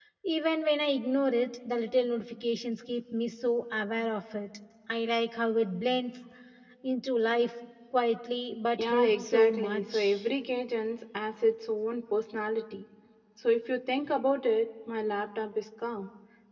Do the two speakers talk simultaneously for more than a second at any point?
Yes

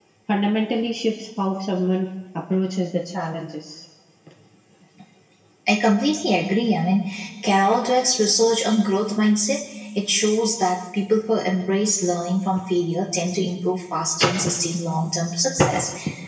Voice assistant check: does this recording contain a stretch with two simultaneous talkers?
No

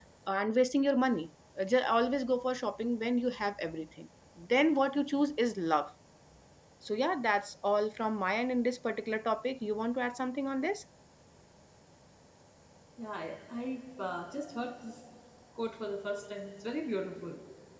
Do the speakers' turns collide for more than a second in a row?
No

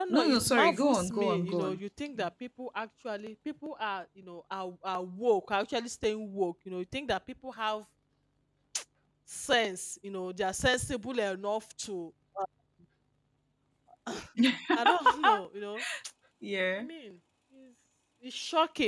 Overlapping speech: Yes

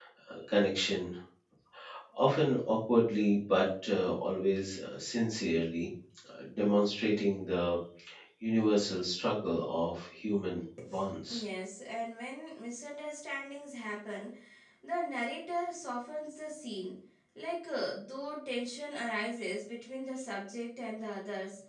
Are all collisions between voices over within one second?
Yes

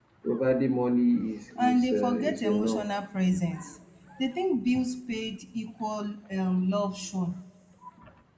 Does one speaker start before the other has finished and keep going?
Yes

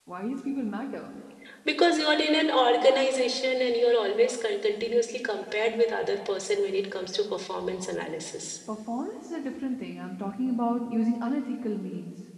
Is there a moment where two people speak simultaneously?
No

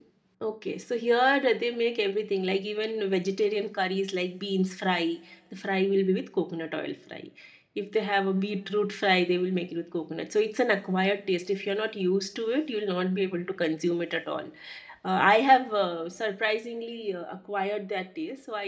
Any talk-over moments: No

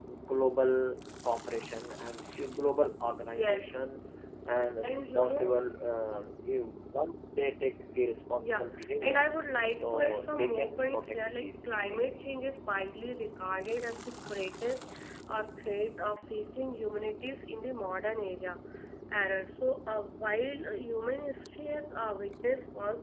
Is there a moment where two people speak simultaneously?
Yes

